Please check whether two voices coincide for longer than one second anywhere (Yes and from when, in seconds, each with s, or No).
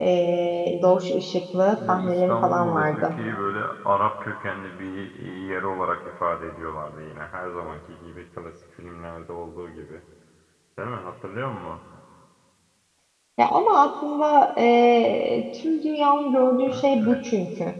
Yes, from 1.8 s